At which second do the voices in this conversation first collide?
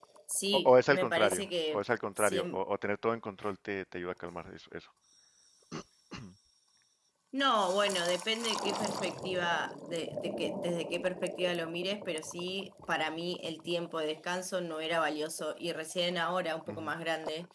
0.5 s

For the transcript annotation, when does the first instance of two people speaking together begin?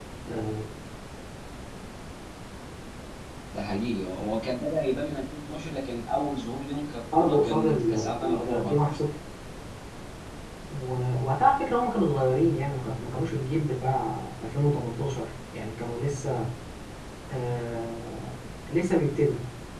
7.1 s

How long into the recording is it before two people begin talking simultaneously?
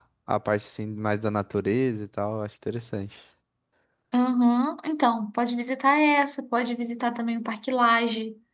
none

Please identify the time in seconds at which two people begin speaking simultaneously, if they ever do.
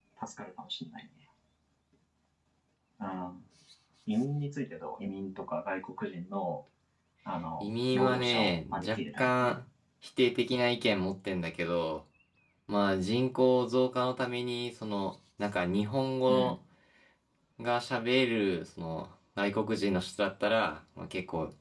7.6 s

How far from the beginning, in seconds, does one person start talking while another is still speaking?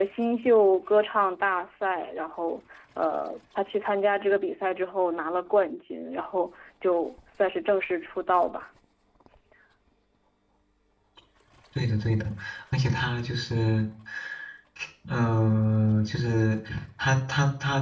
none

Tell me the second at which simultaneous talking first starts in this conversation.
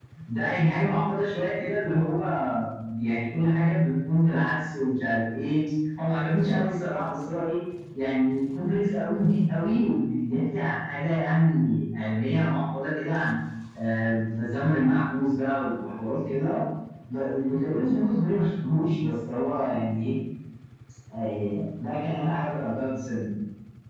none

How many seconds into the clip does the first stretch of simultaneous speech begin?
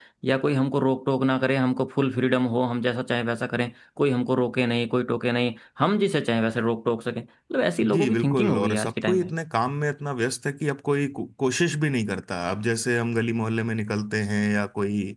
7.8 s

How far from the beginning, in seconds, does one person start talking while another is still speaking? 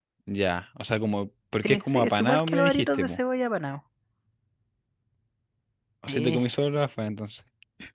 1.6 s

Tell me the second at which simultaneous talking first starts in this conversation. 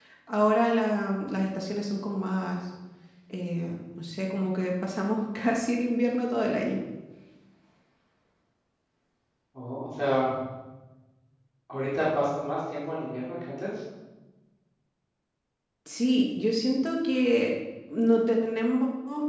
none

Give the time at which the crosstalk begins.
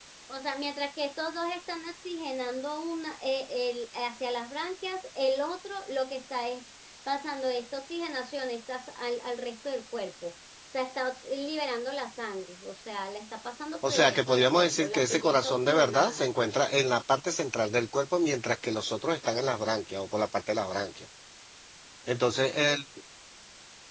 13.8 s

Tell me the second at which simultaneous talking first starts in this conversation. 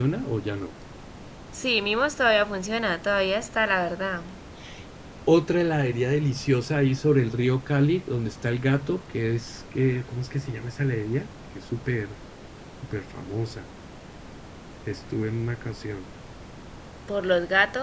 none

